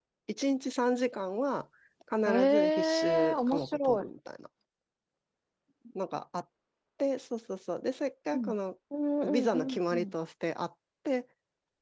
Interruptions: present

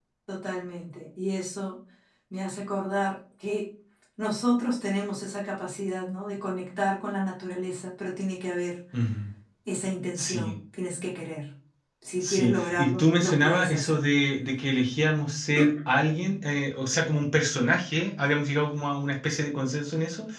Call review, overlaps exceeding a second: present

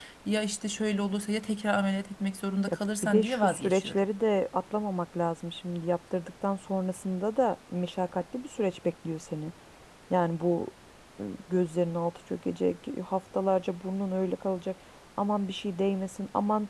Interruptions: present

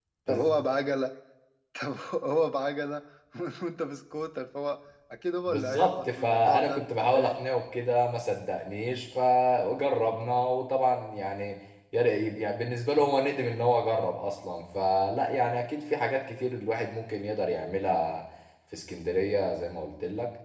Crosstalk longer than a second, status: present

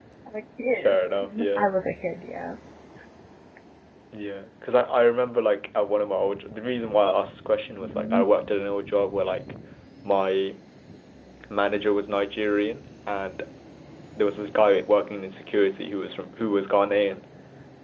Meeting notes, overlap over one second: none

